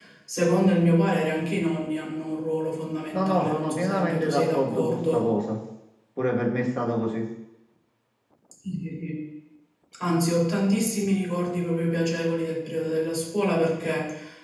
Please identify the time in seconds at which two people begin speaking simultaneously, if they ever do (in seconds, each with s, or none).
3.1 s